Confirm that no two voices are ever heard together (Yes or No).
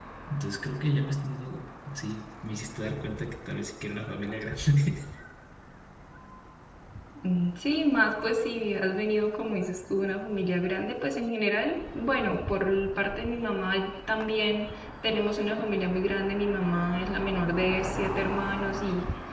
Yes